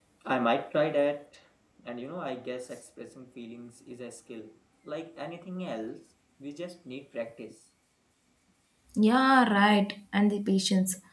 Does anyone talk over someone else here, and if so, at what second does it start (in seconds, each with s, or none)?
none